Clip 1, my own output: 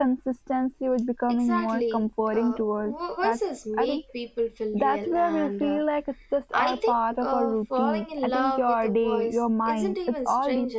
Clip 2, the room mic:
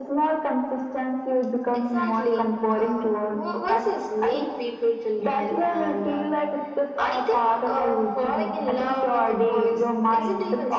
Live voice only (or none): none